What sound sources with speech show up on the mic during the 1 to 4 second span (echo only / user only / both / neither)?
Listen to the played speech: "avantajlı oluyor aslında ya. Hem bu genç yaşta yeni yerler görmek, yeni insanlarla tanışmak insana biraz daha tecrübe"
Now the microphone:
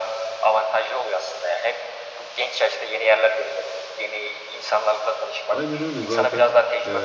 echo only